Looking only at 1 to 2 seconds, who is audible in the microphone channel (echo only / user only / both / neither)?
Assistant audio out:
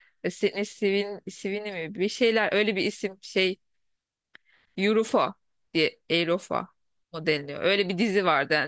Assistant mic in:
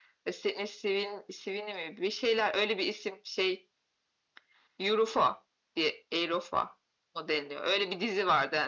echo only